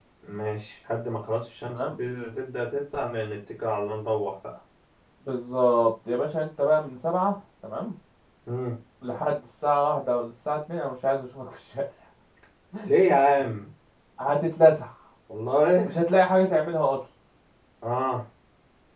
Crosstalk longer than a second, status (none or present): none